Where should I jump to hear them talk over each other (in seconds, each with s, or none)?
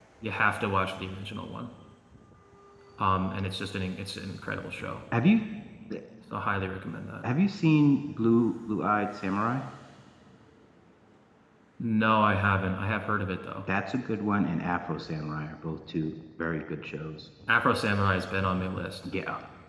none